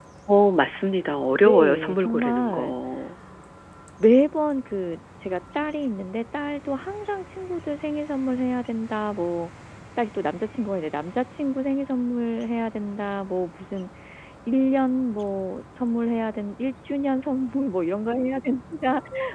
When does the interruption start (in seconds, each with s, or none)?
1.4 s